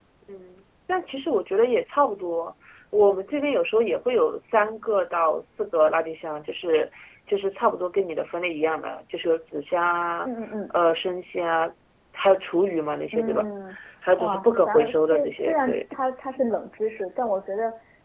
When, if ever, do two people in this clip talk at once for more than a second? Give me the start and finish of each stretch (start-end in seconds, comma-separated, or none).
14.2-15.8